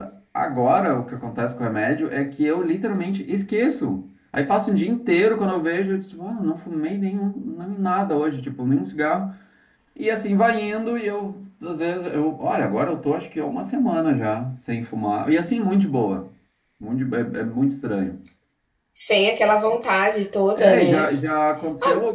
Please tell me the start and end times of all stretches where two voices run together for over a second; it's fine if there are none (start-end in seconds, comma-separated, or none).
none